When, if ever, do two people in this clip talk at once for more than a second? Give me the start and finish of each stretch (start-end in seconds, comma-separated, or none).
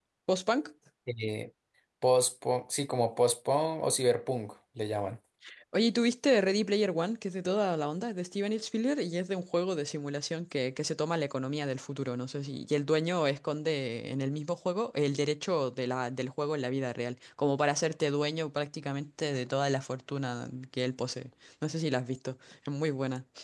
none